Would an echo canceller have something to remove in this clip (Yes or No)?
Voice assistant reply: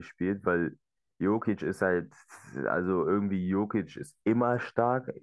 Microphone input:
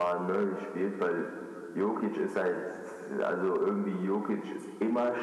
Yes